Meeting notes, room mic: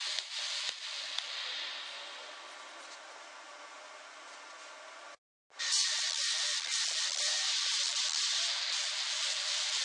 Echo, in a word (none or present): none